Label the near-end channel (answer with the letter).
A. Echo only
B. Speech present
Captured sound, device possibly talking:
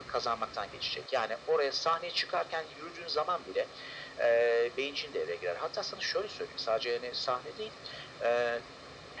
A